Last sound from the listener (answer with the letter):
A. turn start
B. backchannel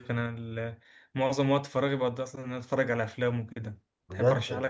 A